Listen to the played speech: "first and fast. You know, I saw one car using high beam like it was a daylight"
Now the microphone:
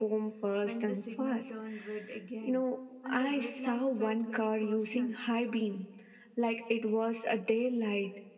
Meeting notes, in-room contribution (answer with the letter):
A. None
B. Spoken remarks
B